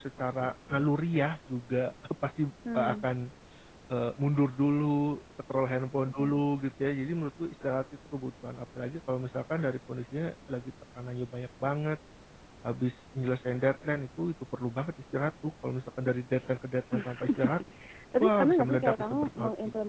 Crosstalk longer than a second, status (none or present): present